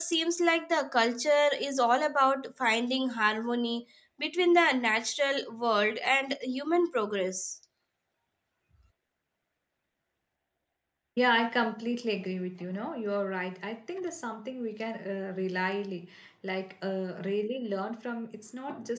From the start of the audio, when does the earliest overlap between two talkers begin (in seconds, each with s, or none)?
none